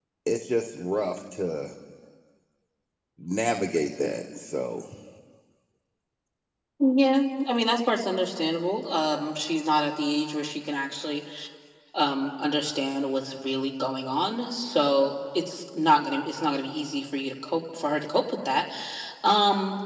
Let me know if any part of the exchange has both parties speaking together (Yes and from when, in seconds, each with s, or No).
No